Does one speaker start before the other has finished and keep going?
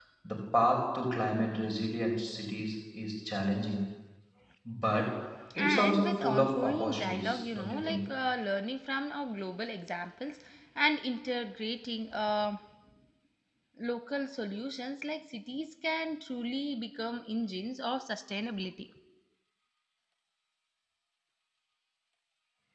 Yes, from 5.6 s

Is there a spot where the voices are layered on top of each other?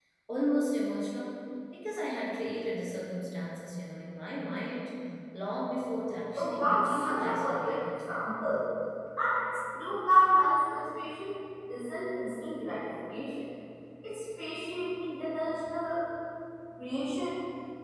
Yes, from 6.4 s

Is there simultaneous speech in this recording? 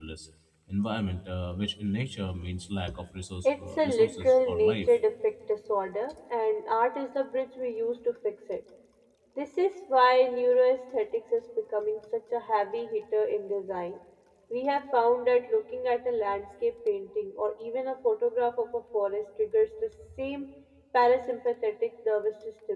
Yes, from 3.4 s

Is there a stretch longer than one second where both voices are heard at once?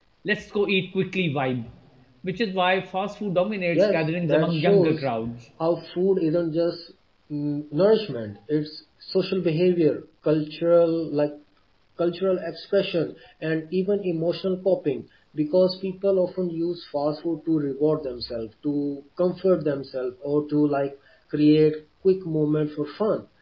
Yes, from 3.7 s

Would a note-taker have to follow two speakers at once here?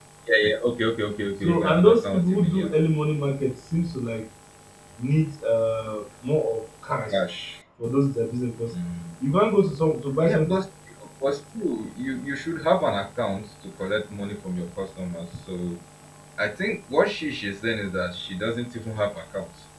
Yes, from 1.4 s

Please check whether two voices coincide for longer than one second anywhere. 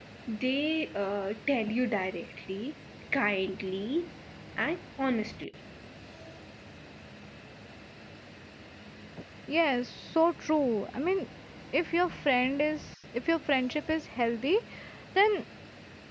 No

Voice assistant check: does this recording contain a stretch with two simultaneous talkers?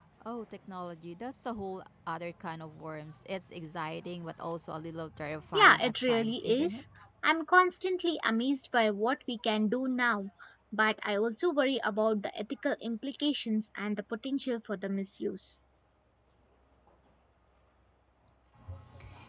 Yes, from 5.5 s

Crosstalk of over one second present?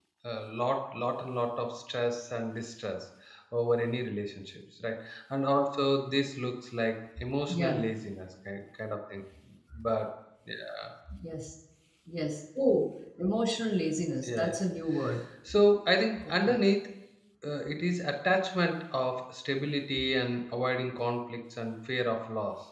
No

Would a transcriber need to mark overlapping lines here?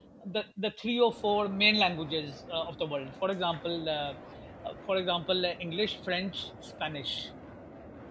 No

